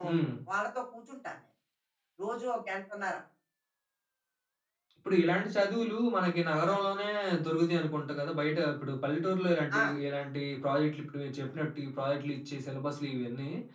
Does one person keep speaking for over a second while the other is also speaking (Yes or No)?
No